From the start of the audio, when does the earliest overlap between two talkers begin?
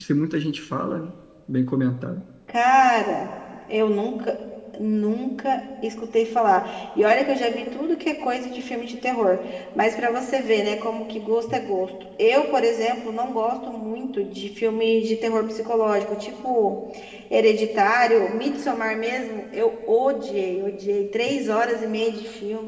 none

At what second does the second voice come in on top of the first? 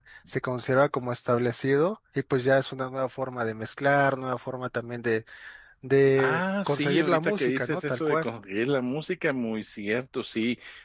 6.2 s

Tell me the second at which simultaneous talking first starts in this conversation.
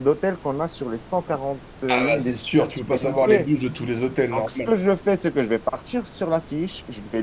1.9 s

